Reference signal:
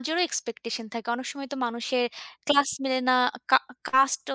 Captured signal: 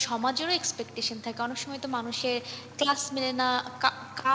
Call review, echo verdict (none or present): present